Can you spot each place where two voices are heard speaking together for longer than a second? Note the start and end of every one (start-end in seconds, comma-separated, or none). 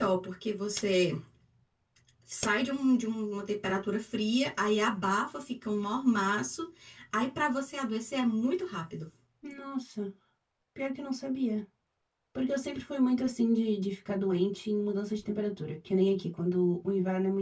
none